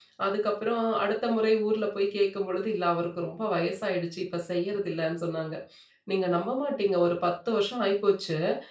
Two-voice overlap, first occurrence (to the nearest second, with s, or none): none